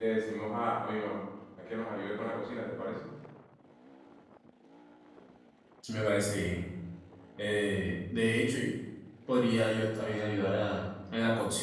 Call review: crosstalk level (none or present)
none